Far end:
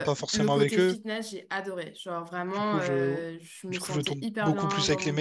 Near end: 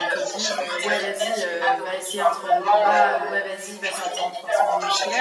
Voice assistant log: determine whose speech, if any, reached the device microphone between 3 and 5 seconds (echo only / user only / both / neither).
both